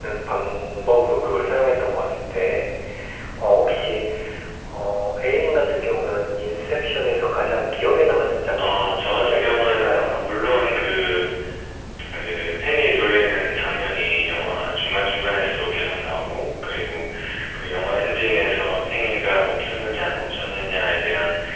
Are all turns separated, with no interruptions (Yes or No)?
No